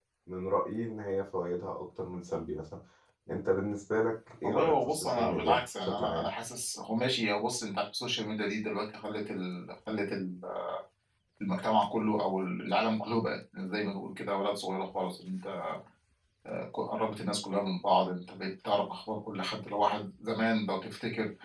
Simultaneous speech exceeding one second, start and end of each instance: 4.4-6.3

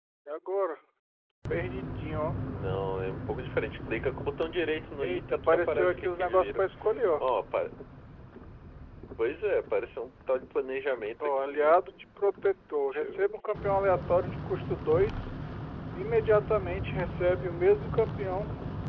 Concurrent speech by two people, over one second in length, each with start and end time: 5.0-6.7

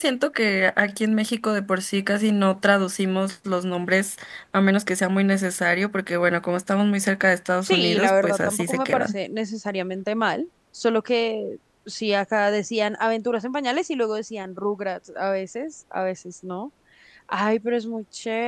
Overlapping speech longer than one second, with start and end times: 7.6-9.2

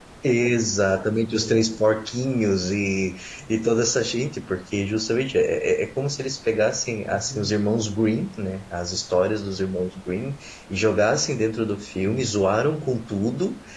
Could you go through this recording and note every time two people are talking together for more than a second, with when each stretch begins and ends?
none

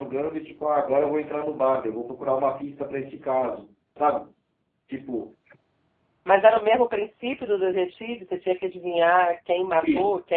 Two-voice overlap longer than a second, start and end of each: none

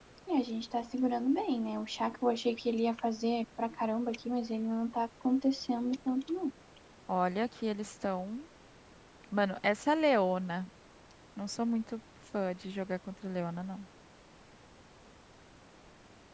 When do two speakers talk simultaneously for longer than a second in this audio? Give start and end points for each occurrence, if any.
none

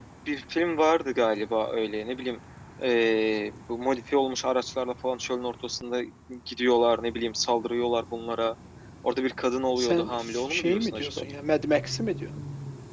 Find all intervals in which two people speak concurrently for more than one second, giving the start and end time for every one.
9.8-11.2

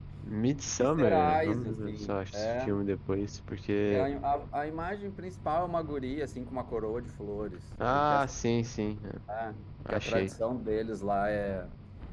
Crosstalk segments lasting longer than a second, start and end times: 0.8-2.8

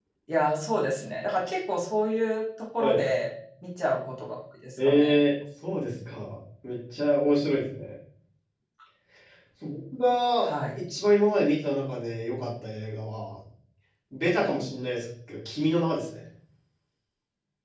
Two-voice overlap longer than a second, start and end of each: none

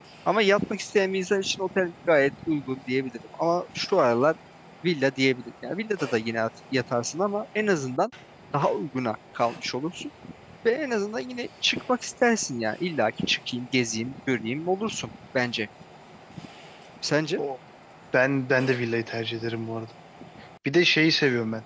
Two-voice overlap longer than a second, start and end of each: none

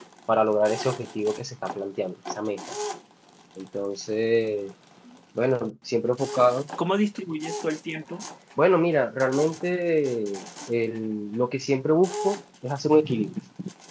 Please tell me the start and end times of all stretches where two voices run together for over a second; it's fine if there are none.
none

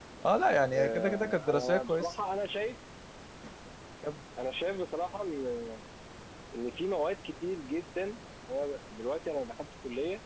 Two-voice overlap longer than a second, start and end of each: 0.7-2.1

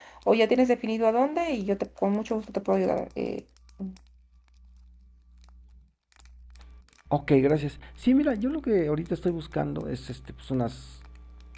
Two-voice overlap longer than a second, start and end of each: none

